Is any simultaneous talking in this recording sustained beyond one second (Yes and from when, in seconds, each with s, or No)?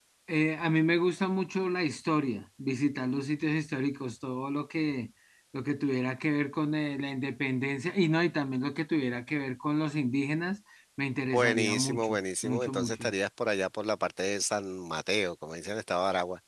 Yes, from 11.3 s